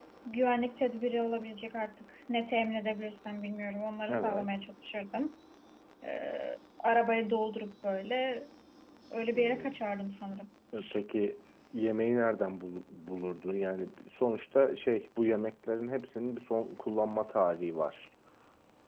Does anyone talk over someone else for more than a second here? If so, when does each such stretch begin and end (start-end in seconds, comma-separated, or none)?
none